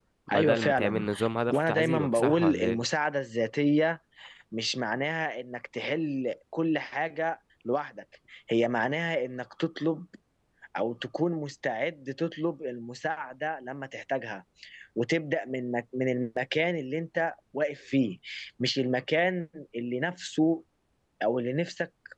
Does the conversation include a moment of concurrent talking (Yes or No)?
Yes